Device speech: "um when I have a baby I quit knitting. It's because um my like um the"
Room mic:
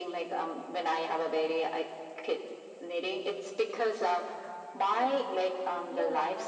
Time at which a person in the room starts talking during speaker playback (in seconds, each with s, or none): 4.9 s